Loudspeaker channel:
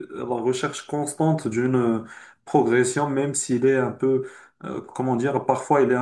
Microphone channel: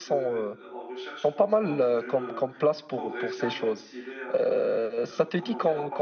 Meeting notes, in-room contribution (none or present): present